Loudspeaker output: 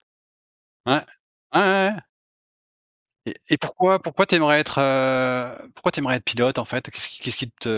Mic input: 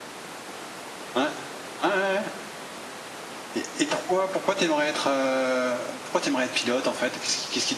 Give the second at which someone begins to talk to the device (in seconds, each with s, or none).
none